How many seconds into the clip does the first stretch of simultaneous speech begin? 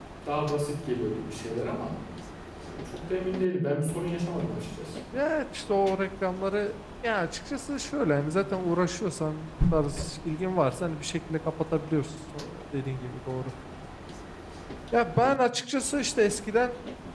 none

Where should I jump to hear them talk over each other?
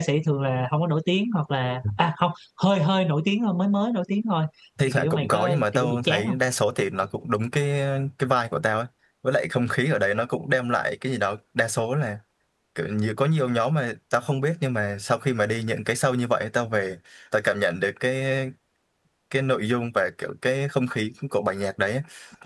4.8 s

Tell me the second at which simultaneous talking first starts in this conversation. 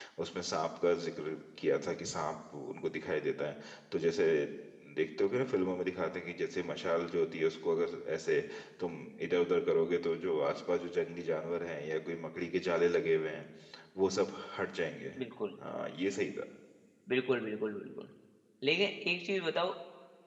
none

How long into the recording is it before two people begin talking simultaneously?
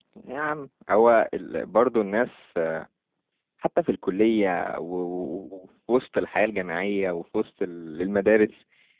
none

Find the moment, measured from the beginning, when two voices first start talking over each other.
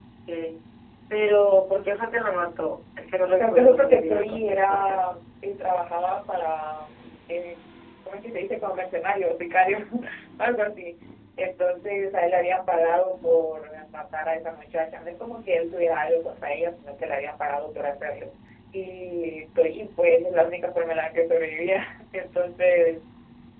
3.4 s

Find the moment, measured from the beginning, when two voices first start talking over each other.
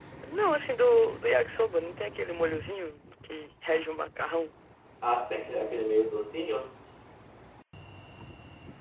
none

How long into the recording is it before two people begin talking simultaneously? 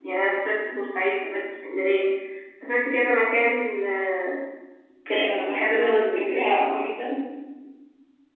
5.1 s

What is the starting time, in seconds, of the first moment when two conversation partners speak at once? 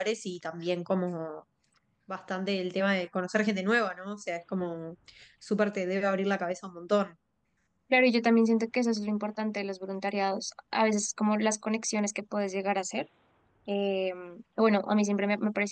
none

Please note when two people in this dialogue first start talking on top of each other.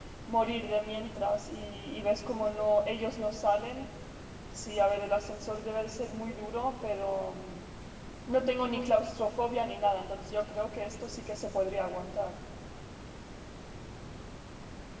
none

